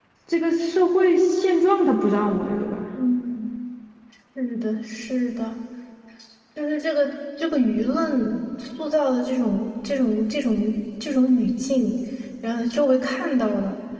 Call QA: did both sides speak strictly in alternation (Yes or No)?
Yes